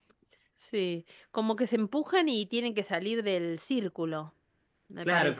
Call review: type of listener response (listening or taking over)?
taking over